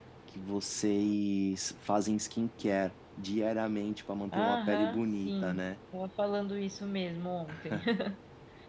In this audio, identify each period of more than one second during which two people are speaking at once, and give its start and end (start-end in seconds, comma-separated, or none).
4.3-5.7